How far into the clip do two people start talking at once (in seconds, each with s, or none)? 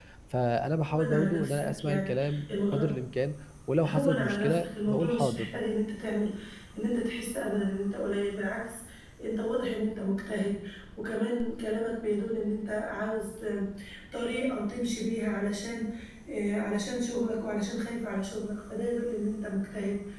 0.9 s